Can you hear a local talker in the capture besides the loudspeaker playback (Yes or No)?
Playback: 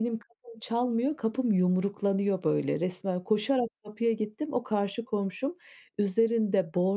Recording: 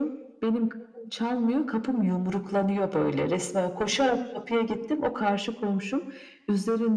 No